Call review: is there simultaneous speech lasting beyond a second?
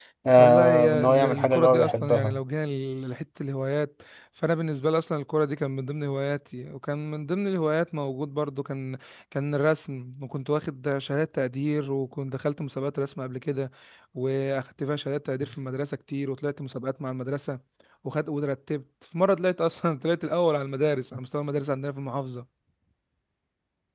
Yes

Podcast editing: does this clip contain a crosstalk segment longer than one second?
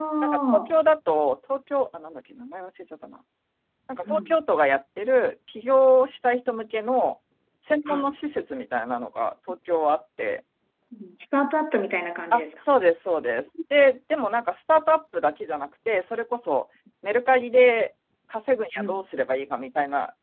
No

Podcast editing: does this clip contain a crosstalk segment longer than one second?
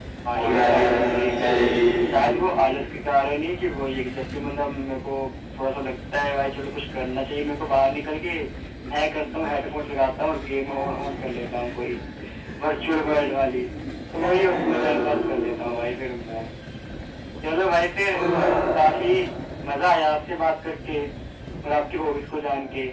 Yes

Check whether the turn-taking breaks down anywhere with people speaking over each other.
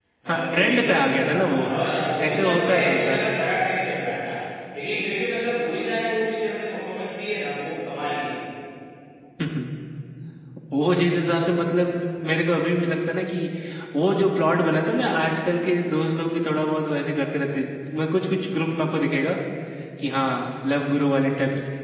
Yes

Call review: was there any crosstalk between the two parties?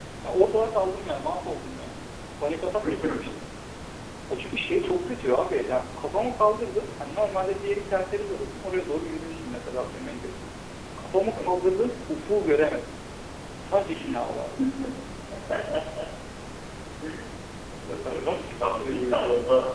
Yes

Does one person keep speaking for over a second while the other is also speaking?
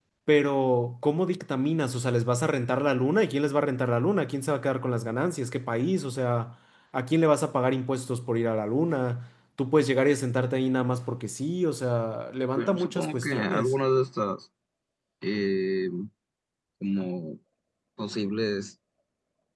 Yes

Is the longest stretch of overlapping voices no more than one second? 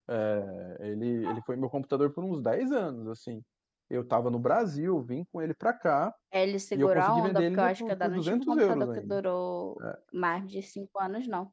No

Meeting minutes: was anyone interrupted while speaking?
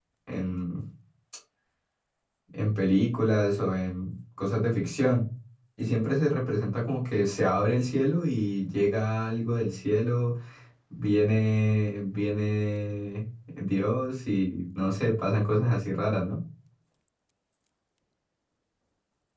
No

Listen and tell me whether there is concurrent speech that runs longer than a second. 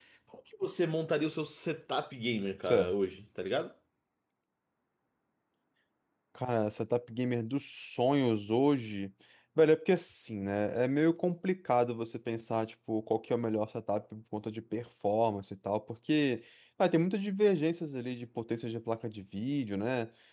No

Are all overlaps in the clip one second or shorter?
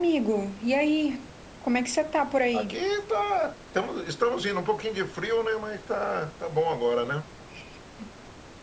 Yes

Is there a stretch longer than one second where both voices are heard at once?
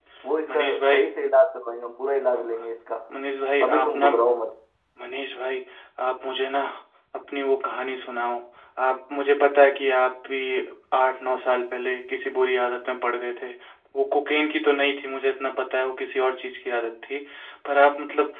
No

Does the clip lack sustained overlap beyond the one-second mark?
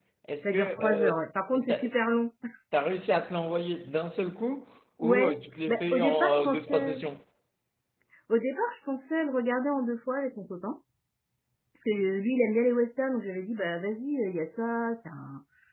No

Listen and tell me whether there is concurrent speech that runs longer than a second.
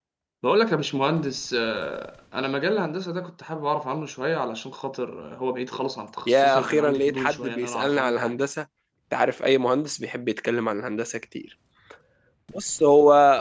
Yes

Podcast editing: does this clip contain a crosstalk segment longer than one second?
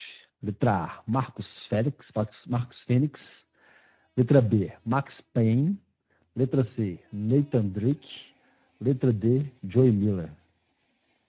No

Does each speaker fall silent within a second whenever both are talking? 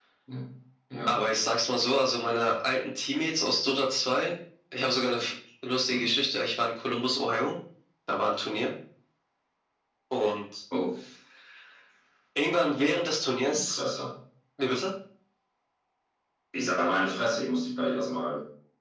Yes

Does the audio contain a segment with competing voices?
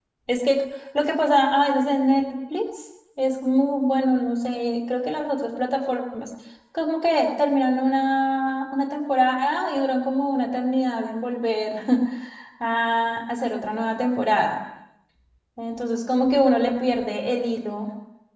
No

